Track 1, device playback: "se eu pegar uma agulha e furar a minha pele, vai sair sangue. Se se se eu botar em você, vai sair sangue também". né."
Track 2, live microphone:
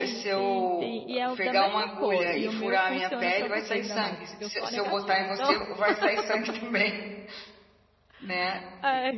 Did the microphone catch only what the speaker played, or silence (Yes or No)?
No